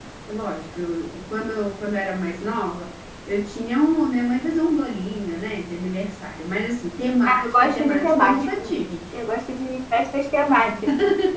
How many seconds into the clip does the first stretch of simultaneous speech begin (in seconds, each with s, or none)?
7.3 s